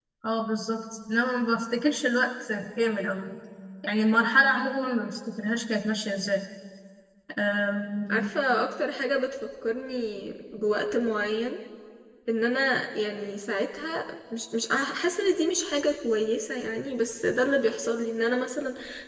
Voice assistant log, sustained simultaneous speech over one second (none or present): none